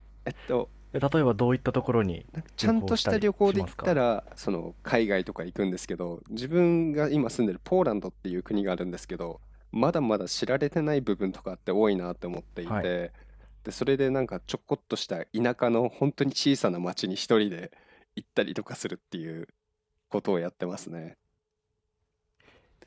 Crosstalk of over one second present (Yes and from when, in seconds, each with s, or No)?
Yes, from 2.6 s